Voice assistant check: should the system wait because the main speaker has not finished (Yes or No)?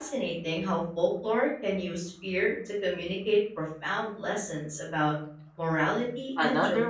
No